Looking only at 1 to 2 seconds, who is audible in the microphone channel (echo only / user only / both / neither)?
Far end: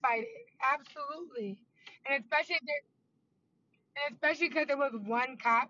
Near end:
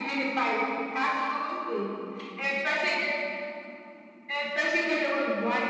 echo only